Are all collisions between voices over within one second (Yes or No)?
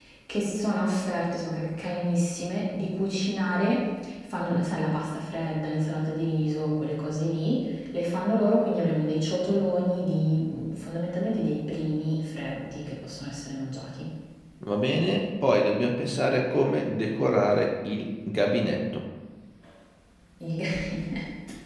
Yes